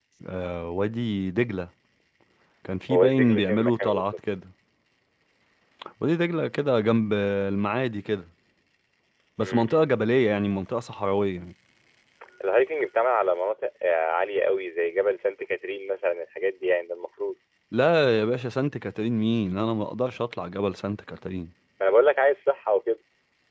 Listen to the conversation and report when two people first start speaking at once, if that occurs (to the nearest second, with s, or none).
3 s